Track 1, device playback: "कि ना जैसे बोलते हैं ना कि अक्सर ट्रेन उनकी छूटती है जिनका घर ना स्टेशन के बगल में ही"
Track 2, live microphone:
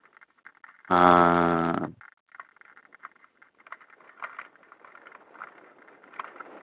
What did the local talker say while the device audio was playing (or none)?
हाँ